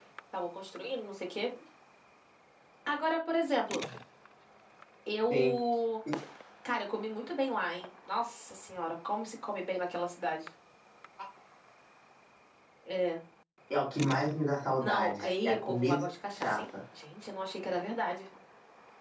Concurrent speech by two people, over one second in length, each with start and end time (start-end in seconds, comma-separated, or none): 14.8-16.6